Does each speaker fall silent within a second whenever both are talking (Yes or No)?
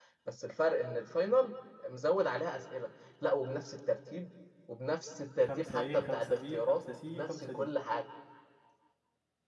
No